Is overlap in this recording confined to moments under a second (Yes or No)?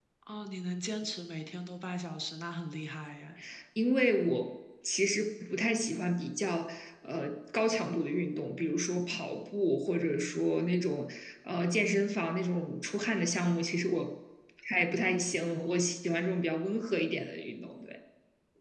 Yes